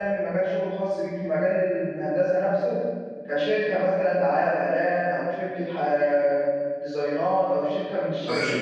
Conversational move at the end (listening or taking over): taking over